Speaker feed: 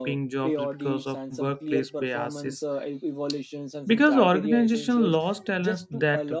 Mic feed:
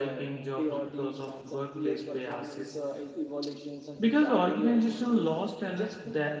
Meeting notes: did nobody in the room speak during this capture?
Yes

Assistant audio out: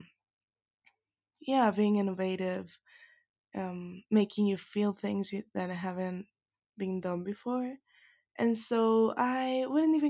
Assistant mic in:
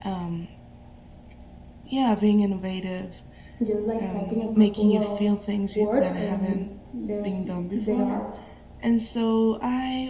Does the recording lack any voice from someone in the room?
No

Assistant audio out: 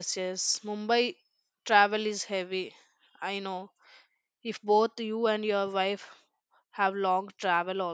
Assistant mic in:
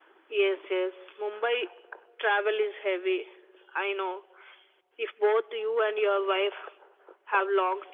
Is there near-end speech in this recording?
No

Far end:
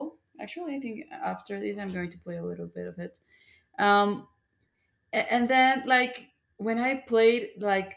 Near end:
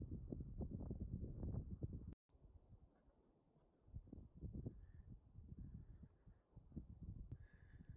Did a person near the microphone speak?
No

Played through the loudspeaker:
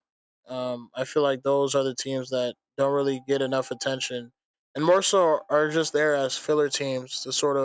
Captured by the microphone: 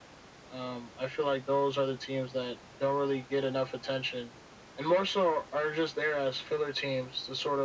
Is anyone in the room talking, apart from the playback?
No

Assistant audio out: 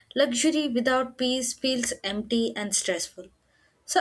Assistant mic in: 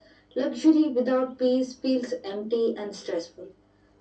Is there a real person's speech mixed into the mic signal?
No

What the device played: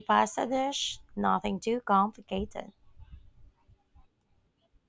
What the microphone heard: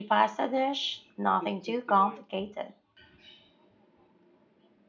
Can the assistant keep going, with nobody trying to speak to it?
No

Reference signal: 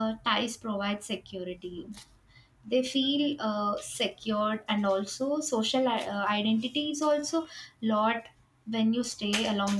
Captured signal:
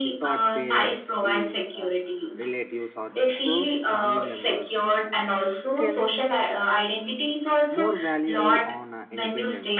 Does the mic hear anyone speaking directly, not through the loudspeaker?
Yes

